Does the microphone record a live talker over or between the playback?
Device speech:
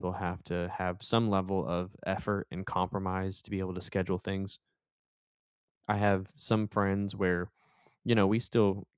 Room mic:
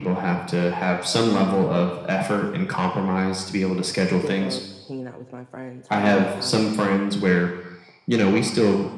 Yes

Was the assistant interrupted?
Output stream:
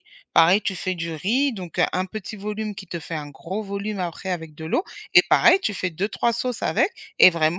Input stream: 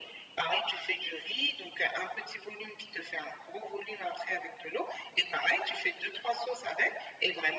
No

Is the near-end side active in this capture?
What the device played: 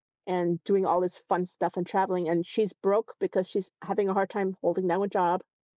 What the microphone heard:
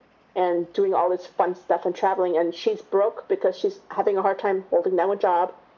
No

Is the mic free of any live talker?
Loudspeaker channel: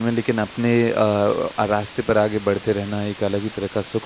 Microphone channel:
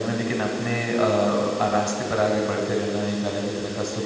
Yes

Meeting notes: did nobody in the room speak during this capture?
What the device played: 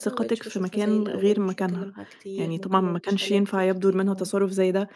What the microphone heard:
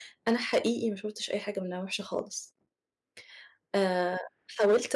No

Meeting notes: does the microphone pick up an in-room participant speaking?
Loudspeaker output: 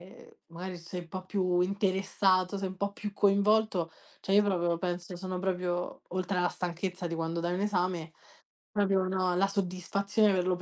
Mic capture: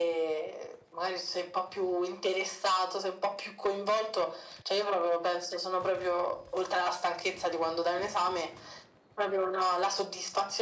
No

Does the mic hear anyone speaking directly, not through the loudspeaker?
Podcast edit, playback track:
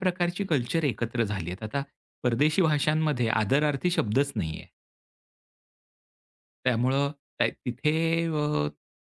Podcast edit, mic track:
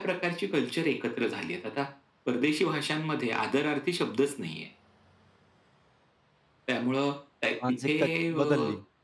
Yes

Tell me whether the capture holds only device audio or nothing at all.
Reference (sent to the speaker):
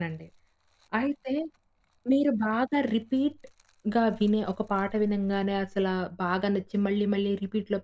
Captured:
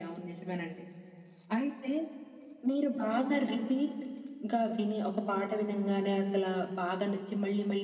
Yes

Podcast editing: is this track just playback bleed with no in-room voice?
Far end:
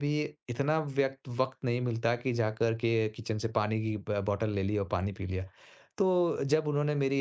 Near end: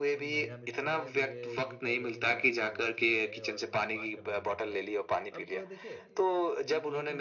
No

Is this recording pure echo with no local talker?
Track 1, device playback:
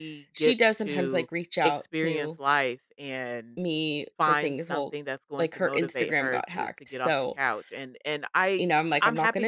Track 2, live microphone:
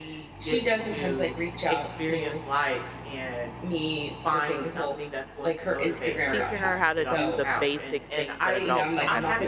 No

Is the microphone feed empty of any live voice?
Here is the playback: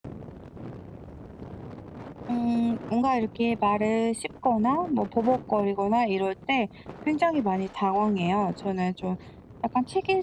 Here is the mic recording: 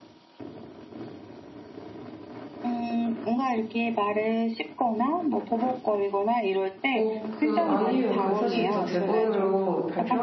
No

